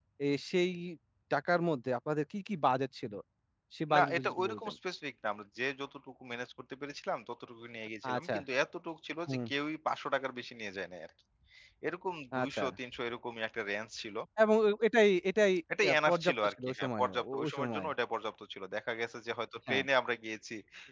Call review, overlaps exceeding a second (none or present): present